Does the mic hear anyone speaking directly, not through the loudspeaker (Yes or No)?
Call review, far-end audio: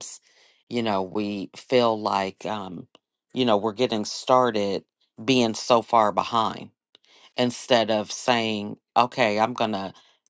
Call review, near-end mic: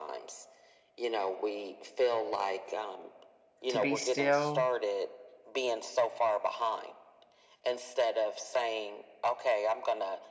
Yes